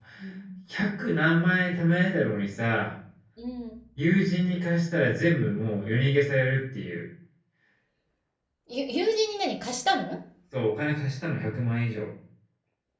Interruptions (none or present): none